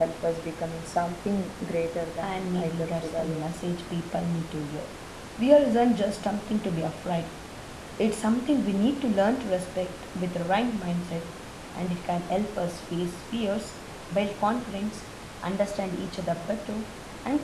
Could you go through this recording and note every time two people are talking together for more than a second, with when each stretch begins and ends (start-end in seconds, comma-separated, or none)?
2.2-3.5